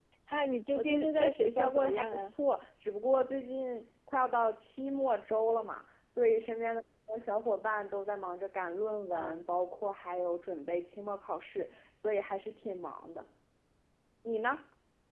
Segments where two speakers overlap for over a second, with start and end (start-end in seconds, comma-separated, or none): 0.8-2.3